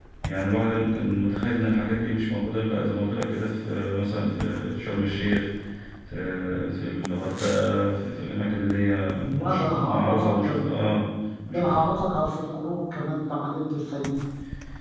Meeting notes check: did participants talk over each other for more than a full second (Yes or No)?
Yes